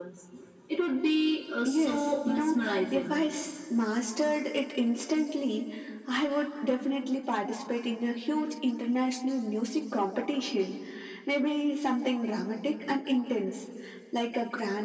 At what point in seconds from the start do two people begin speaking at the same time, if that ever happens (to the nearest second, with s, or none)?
2 s